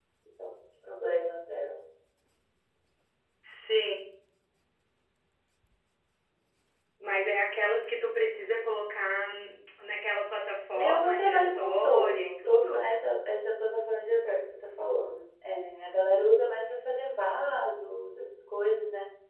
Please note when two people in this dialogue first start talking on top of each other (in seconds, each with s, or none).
10.7 s